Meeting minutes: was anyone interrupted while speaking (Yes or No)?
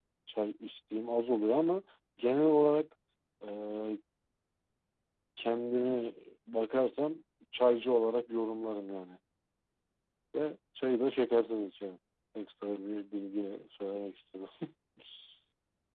No